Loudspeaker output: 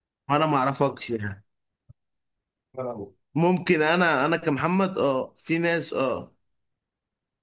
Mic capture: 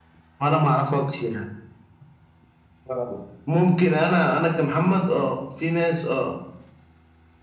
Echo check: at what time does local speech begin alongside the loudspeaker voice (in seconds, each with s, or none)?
none